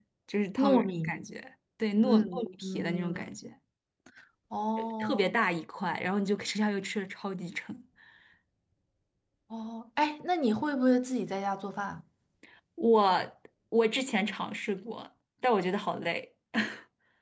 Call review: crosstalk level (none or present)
present